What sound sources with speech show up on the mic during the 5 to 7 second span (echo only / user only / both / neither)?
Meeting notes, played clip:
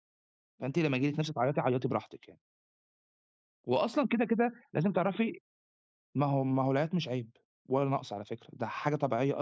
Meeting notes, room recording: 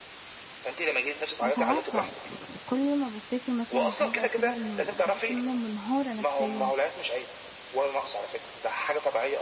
both